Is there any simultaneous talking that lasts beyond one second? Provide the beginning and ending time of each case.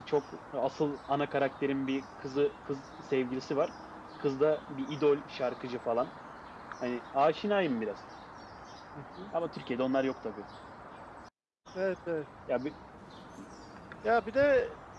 none

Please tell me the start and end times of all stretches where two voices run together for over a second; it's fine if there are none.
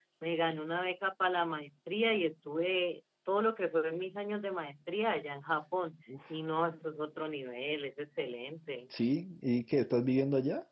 none

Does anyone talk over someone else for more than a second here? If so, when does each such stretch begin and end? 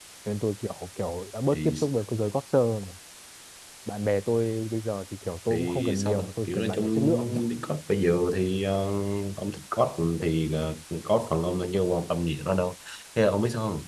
5.5-7.4

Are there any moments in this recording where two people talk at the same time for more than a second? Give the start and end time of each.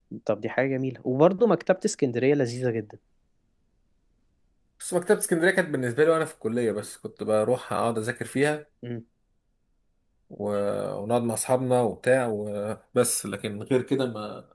none

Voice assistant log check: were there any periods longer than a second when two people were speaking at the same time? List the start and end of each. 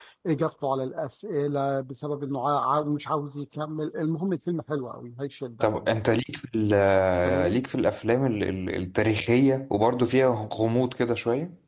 none

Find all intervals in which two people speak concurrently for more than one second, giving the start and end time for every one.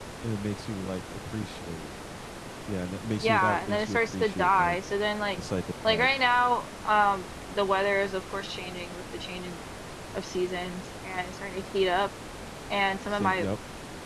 3.2-4.8

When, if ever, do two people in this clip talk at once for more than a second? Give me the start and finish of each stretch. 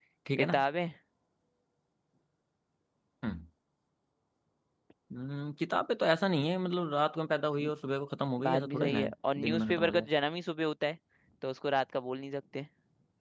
8.4-10.1

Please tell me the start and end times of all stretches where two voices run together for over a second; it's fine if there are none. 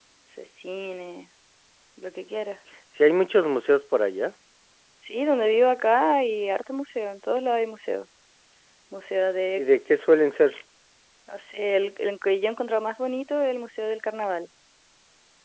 none

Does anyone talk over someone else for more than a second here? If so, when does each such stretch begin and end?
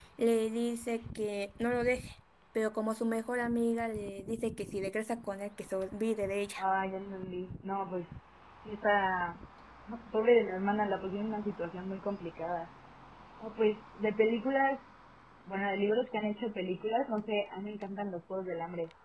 none

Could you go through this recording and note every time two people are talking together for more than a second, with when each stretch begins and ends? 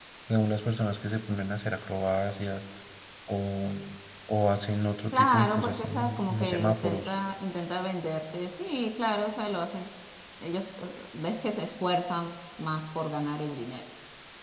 5.1-7.2

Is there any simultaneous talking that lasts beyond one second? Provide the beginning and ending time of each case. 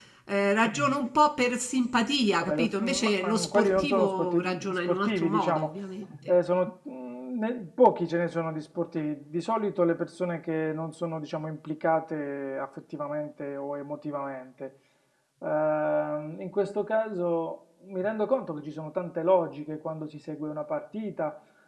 2.4-5.7

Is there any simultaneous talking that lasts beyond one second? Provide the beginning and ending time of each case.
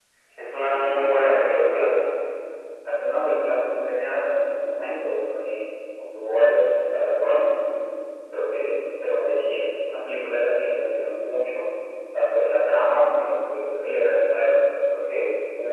0.6-1.9

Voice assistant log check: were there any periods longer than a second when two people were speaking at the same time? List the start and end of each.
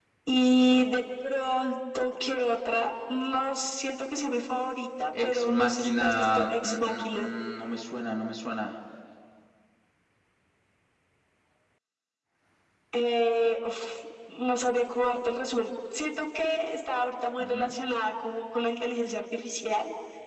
5.2-7.3

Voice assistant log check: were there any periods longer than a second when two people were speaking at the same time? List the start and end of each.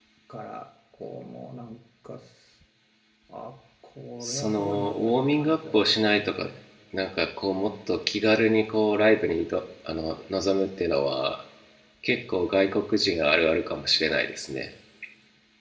4.2-6.3

